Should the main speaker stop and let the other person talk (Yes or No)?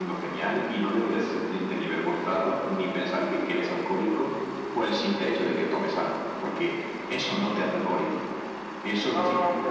No